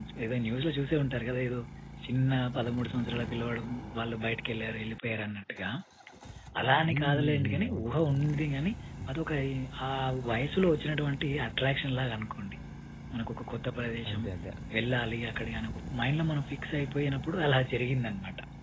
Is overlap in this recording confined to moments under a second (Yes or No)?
No